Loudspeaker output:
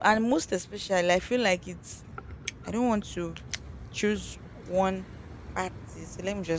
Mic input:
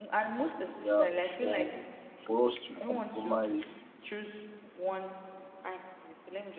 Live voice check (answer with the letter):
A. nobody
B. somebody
B